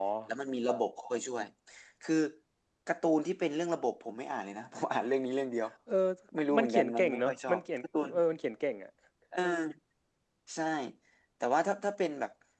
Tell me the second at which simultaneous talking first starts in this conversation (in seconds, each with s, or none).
6.6 s